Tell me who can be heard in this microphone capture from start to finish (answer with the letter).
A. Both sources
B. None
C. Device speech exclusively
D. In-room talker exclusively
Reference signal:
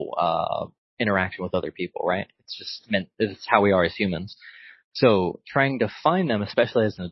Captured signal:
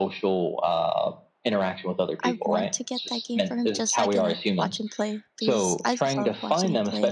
A